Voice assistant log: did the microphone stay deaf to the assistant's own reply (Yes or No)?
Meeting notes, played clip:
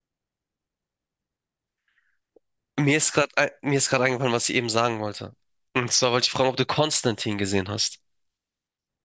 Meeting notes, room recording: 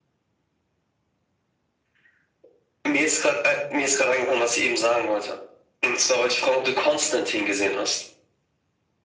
No